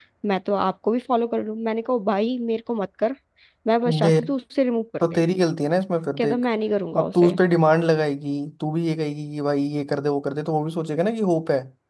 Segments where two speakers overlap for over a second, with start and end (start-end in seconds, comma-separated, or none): none